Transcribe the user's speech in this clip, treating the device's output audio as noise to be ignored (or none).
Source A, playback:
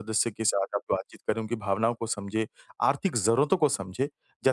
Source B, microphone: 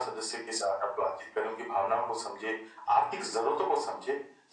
none